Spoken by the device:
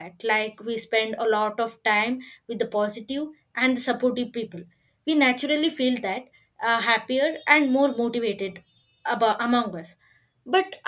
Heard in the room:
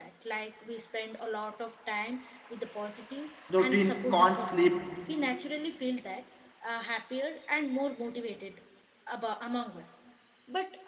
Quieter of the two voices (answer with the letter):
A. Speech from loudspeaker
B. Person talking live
A